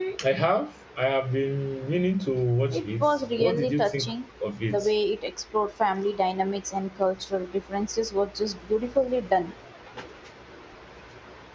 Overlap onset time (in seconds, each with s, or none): 2.7 s